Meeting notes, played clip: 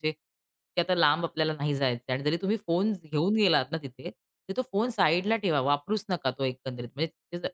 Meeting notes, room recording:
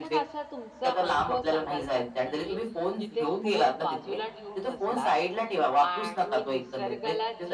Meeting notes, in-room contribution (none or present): present